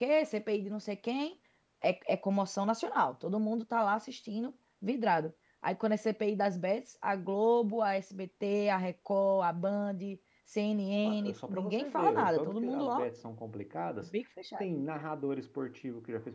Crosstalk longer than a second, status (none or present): present